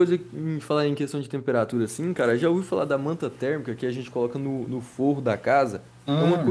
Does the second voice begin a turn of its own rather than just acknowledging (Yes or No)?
No